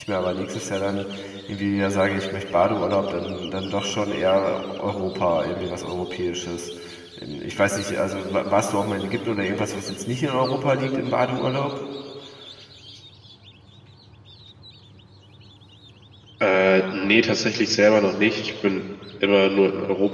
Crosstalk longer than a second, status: none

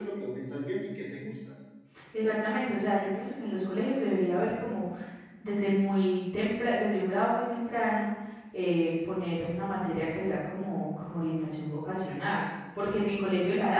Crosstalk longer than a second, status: none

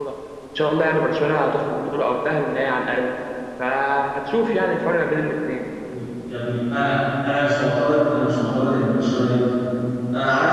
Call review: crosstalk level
none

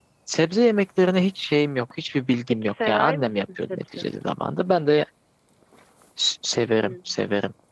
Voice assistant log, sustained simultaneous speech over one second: present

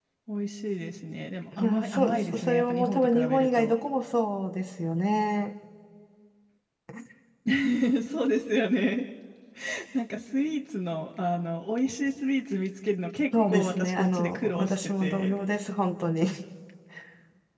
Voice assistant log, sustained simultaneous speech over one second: present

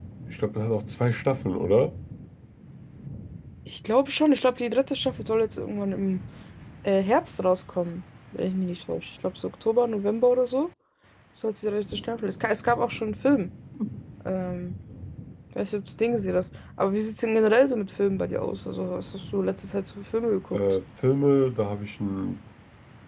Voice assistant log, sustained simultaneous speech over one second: none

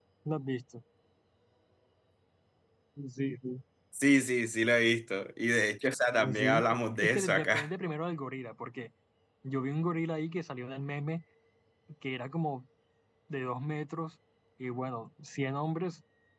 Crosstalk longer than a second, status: present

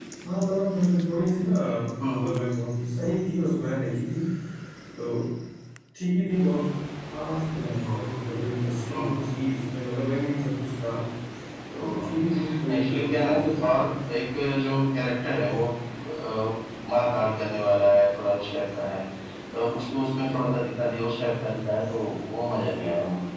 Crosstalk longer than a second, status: present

